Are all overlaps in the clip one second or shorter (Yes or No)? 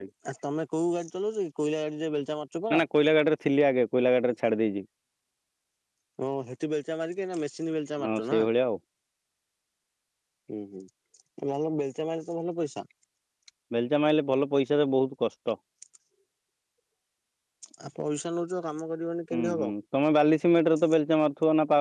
Yes